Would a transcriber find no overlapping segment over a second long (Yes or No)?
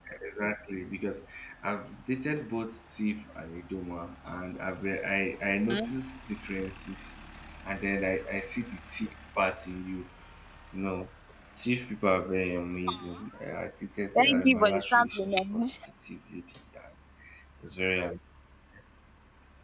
No